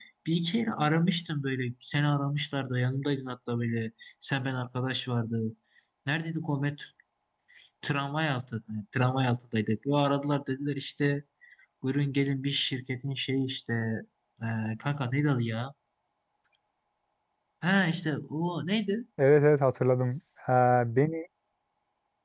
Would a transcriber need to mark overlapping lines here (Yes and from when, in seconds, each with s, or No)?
No